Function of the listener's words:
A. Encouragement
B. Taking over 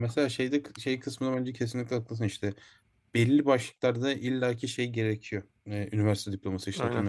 A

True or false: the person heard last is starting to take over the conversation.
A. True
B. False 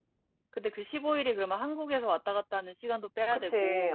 A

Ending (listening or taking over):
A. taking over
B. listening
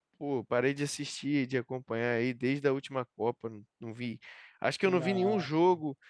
B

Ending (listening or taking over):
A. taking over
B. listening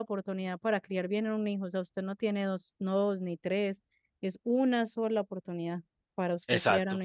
A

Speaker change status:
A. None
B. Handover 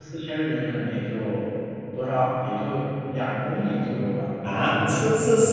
B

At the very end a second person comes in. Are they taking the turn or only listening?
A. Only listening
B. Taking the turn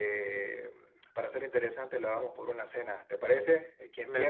B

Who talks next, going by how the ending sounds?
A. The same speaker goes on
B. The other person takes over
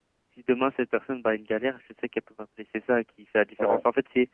A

